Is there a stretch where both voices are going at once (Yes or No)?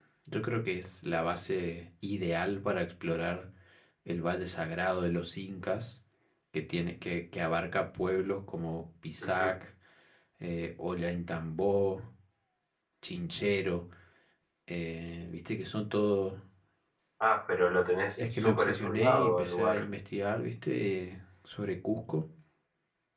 Yes